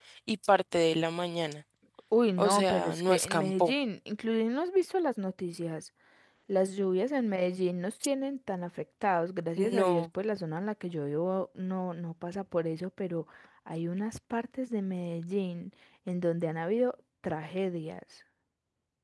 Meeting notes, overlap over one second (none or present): present